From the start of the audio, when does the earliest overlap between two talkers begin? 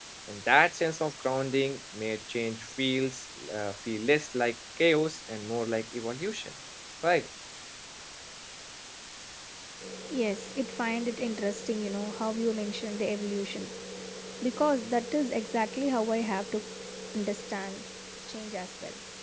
none

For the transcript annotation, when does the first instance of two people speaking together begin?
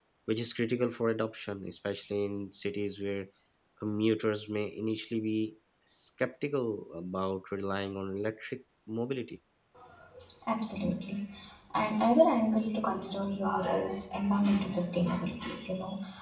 none

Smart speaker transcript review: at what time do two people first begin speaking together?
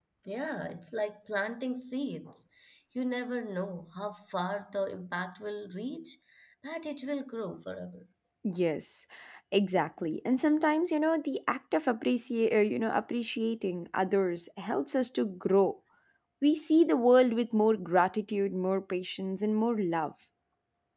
none

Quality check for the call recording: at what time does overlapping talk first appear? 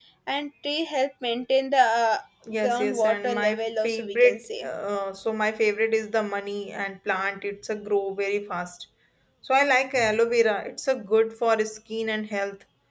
2.6 s

